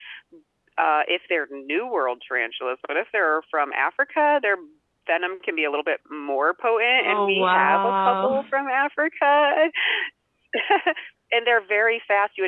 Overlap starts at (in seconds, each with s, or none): 7.0 s